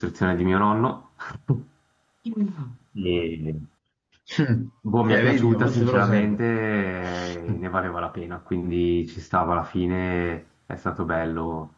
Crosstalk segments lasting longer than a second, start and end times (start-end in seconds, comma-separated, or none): 5.1-6.4